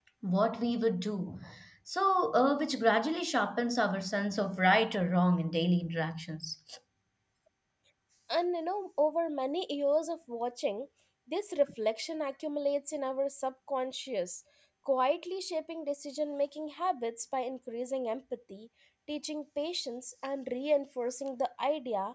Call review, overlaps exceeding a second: none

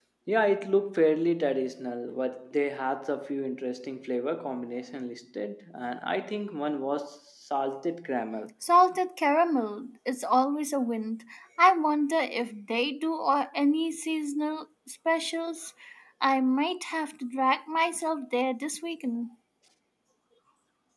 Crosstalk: none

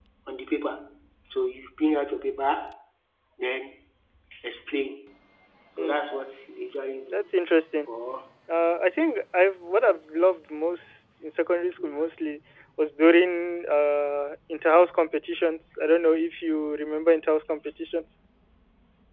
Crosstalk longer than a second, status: none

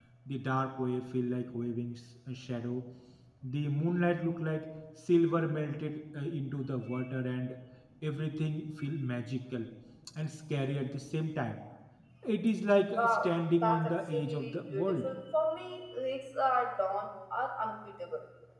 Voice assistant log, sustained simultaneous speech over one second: present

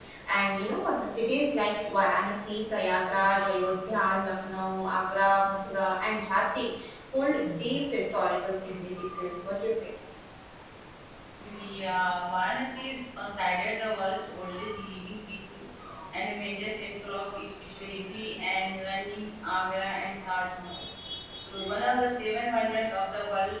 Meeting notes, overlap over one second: none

